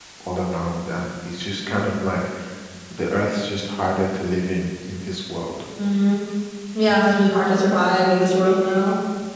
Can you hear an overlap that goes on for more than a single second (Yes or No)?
No